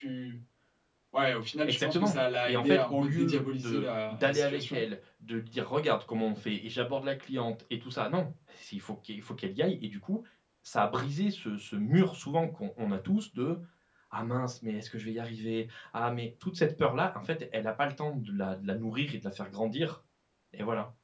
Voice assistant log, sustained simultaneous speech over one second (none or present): present